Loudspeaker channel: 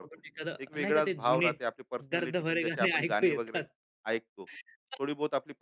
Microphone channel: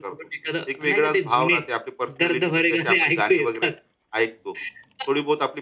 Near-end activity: none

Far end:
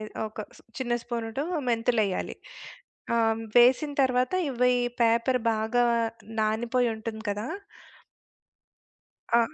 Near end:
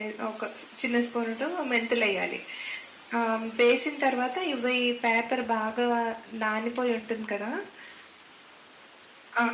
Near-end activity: none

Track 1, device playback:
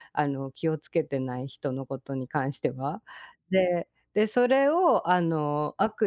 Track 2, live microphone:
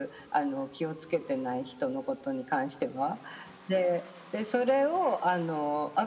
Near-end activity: none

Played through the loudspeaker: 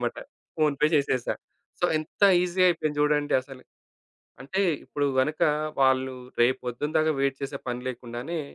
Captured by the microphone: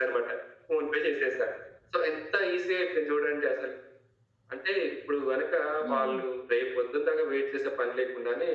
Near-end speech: present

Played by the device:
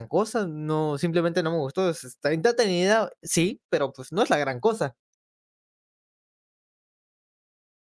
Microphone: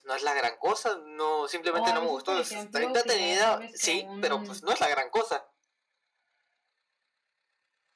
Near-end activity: present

